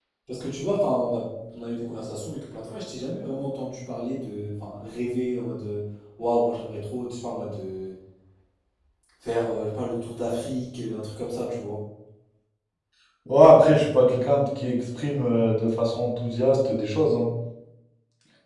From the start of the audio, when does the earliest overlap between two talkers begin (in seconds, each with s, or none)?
none